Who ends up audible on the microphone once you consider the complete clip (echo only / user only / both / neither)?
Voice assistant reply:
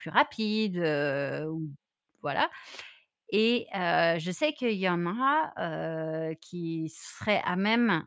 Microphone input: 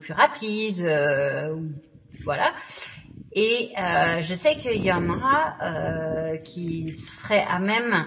echo only